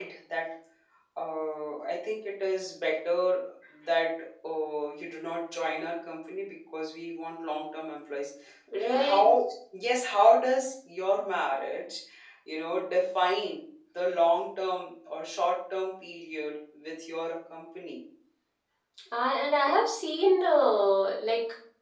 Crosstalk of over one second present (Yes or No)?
No